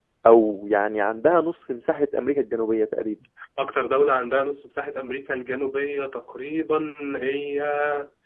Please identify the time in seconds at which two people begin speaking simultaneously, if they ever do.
none

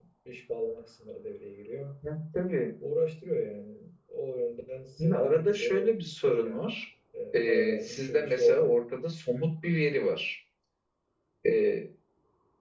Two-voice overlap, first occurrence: 5.0 s

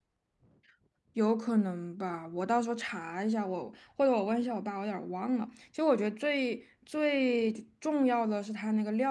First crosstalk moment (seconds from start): none

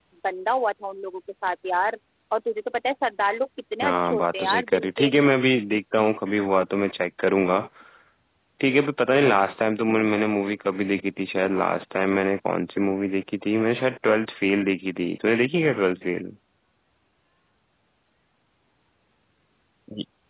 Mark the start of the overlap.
3.8 s

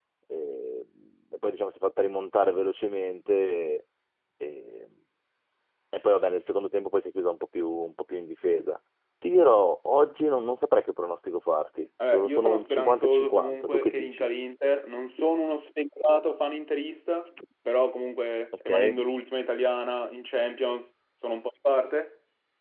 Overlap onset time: 12.1 s

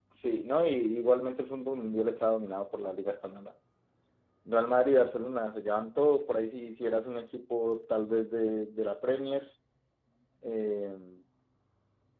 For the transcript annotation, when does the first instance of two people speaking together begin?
none

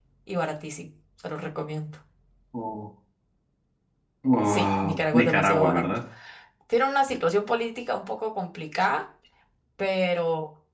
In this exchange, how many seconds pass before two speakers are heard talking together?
4.5 s

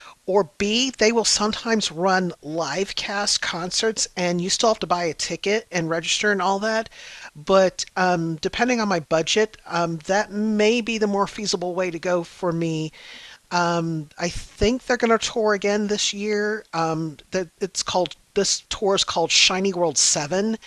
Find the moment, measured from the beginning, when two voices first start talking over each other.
none

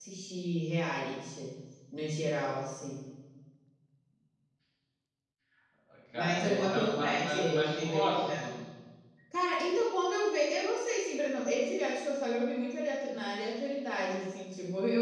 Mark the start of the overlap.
6.1 s

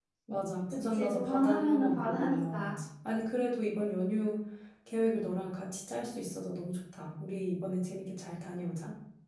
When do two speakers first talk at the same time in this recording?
0.9 s

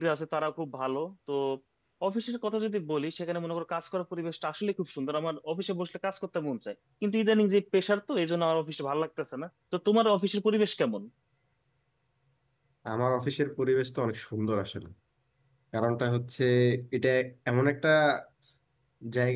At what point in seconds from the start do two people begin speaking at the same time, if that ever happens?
none

